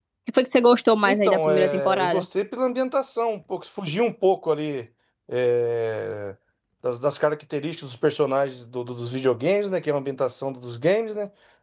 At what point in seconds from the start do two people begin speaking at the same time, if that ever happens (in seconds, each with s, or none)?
1.0 s